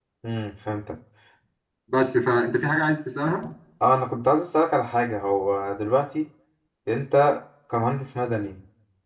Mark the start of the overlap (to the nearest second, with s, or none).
none